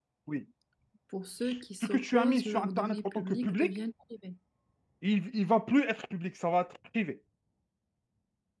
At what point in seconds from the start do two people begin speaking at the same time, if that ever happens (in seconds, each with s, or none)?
1.8 s